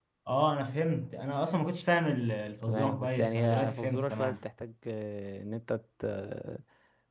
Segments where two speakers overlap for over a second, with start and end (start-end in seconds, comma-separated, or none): 2.6-4.4